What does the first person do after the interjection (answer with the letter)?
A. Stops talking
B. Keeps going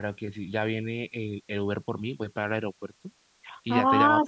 A